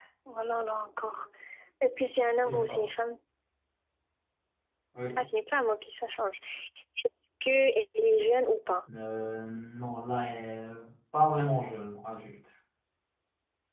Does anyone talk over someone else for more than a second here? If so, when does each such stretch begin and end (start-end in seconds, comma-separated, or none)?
none